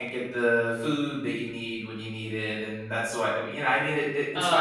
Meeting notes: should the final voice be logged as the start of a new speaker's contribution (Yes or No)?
No